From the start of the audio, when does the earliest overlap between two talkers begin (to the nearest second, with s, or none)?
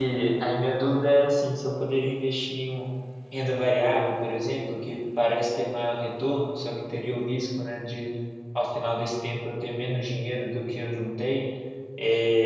none